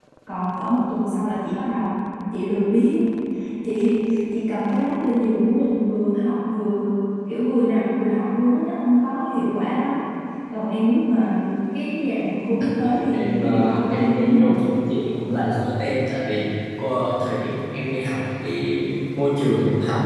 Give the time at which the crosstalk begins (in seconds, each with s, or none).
13.1 s